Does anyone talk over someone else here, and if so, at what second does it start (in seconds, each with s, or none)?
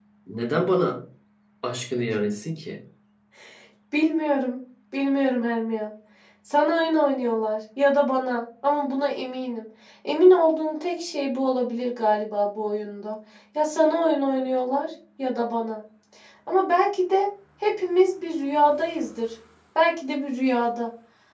none